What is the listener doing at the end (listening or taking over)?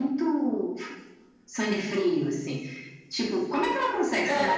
listening